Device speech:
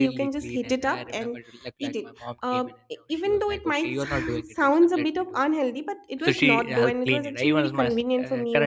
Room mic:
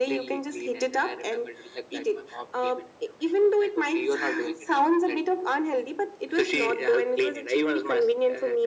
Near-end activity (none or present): none